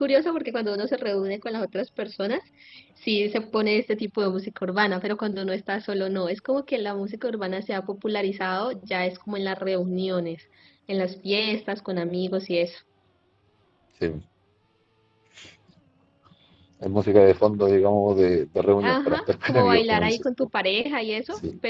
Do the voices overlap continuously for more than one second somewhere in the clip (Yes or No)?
Yes